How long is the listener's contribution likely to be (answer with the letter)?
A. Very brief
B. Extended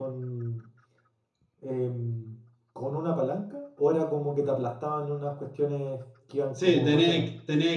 B